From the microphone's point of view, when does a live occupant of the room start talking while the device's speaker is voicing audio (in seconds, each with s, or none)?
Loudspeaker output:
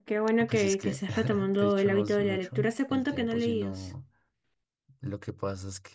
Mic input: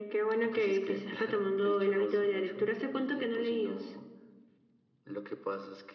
none